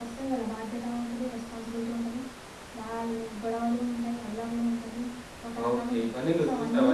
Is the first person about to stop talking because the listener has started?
Yes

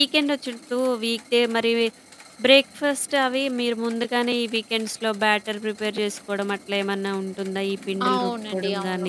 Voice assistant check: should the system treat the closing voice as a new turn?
Yes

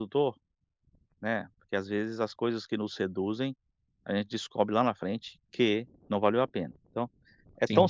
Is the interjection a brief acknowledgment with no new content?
Yes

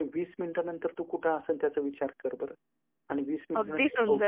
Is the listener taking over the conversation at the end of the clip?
Yes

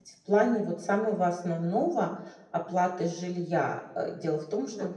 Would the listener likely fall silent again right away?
Yes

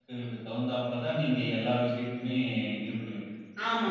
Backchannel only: No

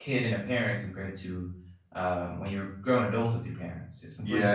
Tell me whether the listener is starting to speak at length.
Yes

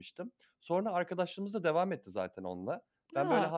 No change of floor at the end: Yes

